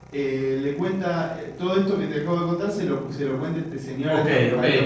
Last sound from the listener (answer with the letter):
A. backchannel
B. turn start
B